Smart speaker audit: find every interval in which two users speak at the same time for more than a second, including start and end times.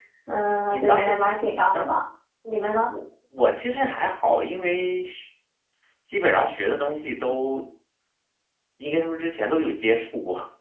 none

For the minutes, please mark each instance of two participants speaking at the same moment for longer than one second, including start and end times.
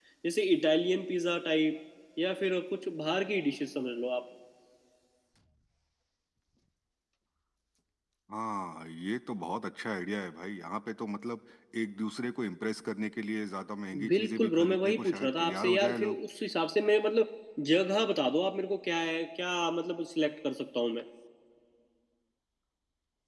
14.1-16.2

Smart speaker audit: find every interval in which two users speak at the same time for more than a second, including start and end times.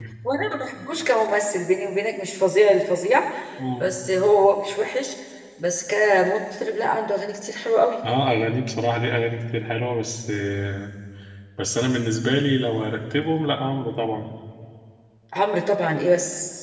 none

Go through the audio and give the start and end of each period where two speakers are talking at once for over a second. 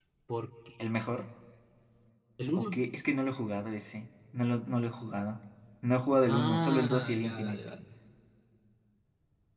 6.2-7.6

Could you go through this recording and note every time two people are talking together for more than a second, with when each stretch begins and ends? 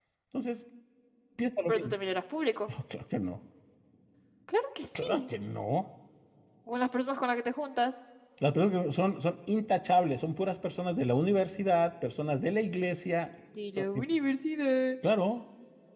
none

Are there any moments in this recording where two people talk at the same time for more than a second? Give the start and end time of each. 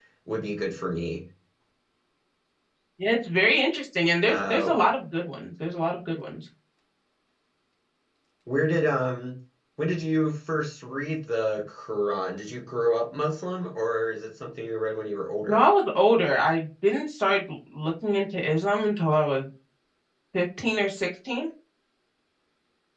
none

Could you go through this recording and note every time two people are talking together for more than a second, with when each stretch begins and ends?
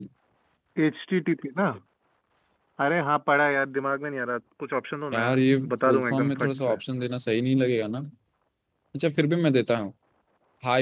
5.1-6.8

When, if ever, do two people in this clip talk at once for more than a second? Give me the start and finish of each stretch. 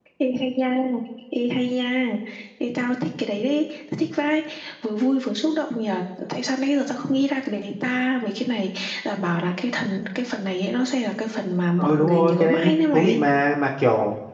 11.8-13.2

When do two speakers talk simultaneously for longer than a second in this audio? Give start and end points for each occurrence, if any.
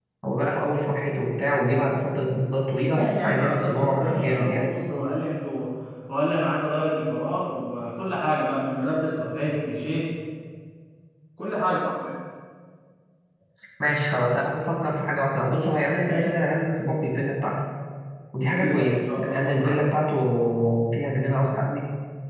2.9-4.6, 18.5-19.8

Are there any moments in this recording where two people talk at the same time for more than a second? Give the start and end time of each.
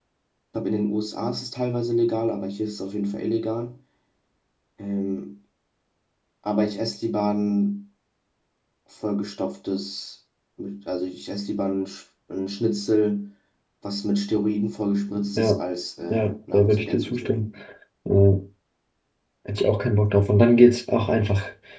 16.1-17.5

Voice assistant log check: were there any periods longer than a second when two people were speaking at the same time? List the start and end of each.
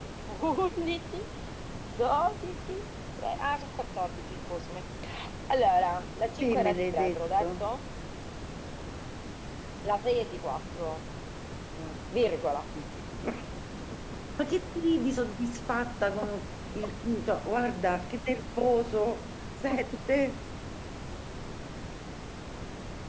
6.4-7.7

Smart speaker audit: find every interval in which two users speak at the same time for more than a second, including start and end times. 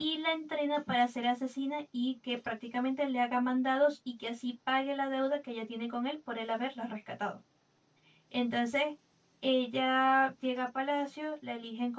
none

